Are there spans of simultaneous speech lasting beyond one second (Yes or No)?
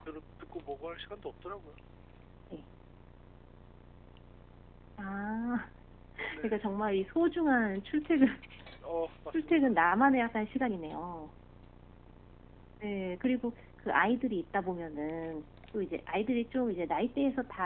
No